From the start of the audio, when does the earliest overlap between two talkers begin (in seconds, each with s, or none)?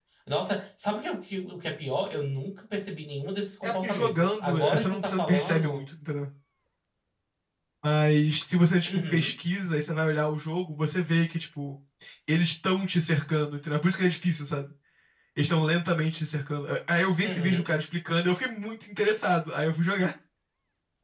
3.7 s